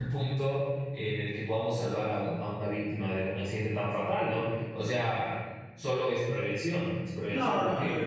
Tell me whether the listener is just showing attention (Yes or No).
No